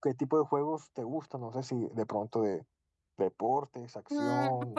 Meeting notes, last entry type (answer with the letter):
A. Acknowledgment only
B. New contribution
B